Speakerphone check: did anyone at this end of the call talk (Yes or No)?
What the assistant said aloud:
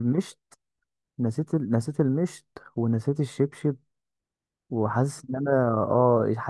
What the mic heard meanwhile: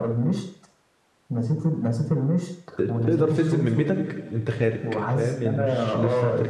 Yes